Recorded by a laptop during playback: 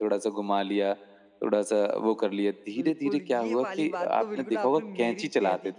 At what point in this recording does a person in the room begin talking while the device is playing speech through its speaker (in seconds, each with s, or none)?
2.8 s